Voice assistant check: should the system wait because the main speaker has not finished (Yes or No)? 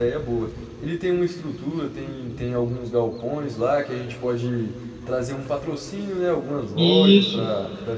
Yes